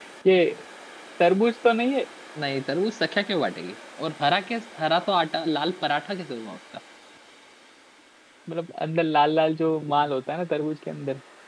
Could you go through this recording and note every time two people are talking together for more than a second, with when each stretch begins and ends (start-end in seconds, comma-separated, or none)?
none